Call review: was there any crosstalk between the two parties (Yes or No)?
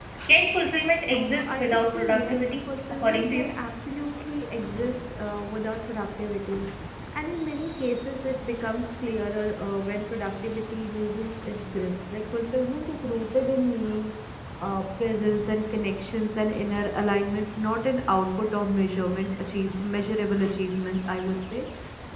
Yes